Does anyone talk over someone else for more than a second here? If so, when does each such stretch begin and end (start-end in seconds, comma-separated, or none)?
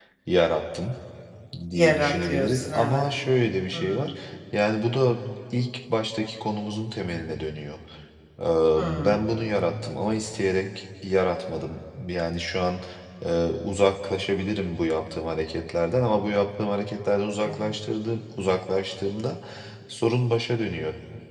1.7-3.1